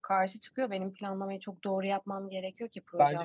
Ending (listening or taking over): taking over